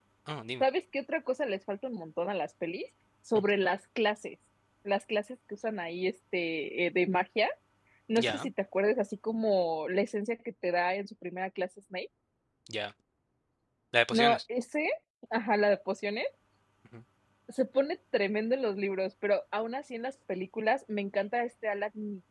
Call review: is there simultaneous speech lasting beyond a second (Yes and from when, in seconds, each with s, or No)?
No